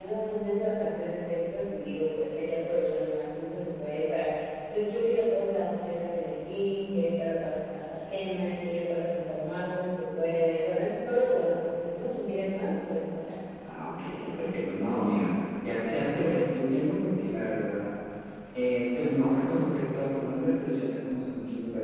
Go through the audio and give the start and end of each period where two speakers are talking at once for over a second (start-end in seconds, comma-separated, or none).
none